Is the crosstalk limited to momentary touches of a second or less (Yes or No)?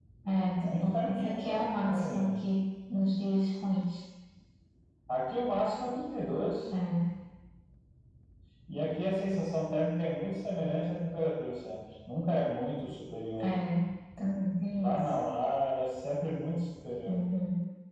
No